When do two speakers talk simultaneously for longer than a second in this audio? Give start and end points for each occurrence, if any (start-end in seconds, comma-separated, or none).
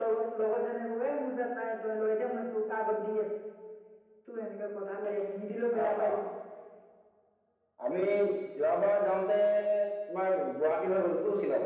none